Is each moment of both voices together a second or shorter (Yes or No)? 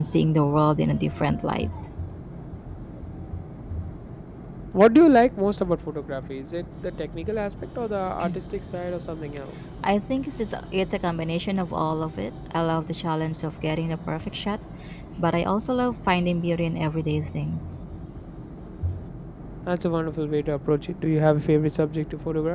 Yes